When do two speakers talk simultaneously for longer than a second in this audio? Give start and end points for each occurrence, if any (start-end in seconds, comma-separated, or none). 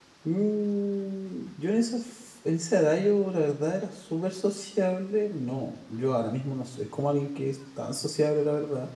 none